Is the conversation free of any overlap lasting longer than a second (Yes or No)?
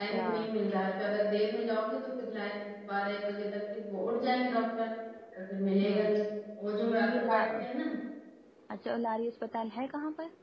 Yes